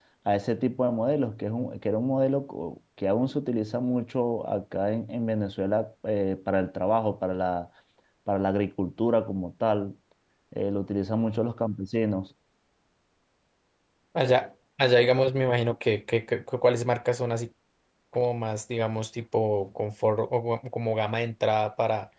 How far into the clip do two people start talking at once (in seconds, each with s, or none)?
none